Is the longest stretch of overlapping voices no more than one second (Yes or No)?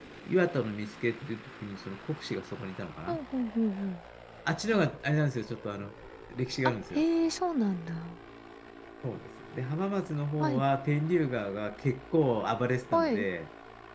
Yes